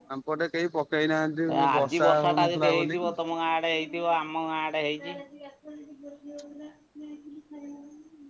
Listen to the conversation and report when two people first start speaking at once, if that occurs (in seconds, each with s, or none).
1.5 s